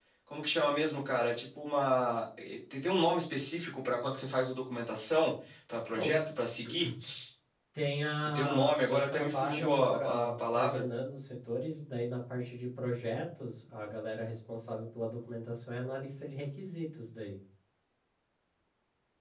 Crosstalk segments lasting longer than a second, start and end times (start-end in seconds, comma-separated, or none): 8.2-10.9